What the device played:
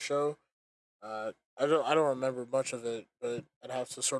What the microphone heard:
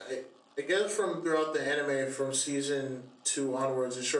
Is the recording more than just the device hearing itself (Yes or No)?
Yes